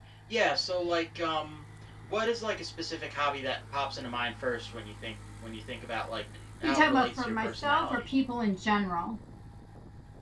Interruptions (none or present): present